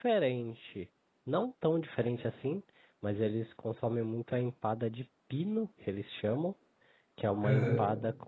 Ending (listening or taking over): listening